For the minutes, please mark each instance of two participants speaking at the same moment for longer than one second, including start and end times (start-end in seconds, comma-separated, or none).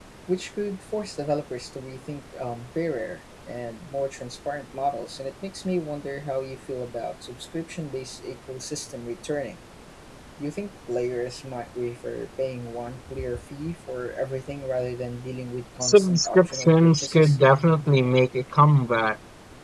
15.8-17.4